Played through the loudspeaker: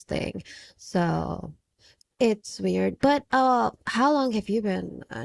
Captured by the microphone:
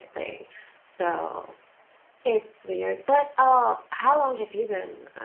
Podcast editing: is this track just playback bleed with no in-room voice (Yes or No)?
Yes